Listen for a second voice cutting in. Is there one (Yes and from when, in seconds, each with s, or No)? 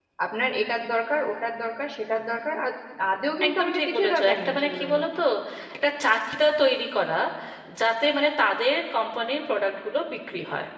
Yes, from 3.5 s